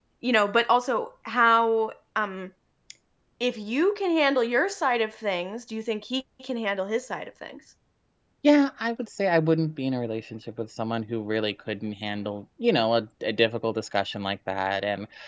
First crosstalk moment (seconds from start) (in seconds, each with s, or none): none